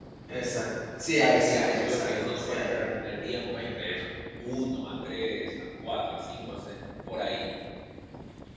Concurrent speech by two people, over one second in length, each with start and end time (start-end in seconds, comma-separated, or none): 1.4-2.7